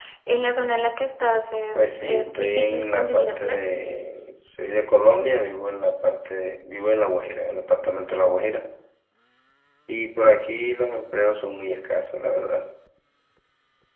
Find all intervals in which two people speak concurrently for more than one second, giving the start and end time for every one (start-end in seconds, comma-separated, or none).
1.8-3.6